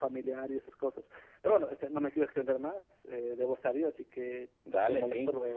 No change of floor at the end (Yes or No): No